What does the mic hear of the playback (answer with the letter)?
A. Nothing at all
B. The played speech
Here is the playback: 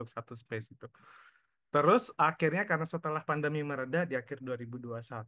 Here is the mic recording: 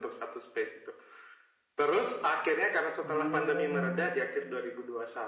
B